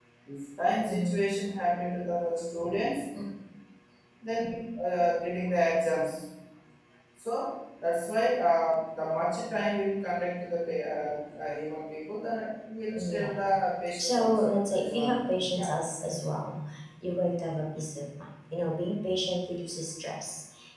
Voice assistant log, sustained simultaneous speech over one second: present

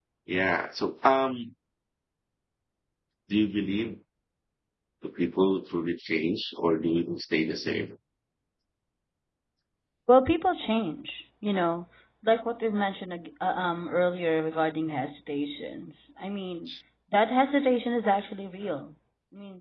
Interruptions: none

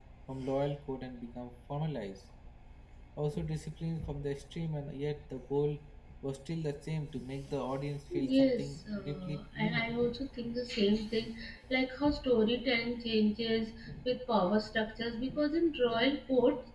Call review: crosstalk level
present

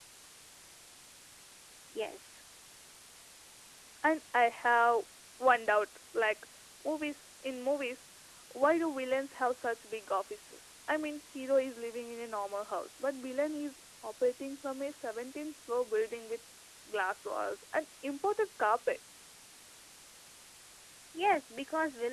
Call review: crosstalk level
none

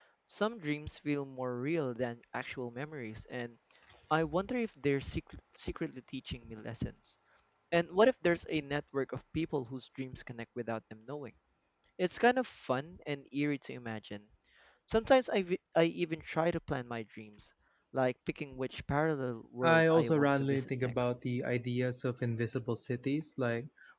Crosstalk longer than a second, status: present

